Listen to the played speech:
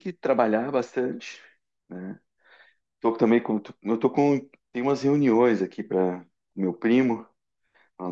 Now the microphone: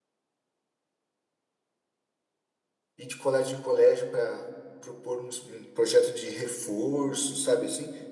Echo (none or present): none